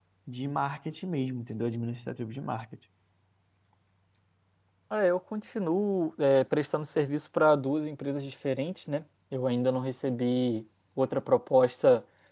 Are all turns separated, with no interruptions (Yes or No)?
Yes